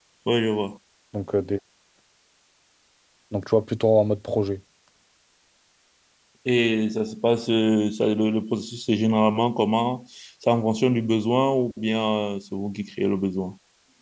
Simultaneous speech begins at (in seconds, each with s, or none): none